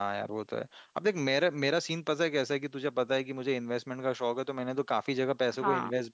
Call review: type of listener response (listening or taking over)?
listening